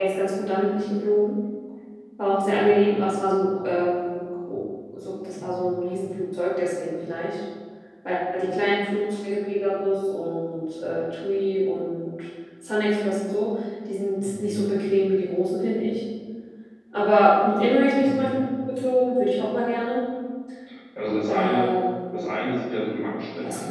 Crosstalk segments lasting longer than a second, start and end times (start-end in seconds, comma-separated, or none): none